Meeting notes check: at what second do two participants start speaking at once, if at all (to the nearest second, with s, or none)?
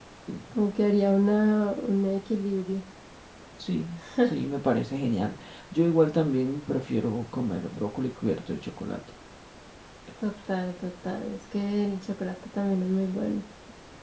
none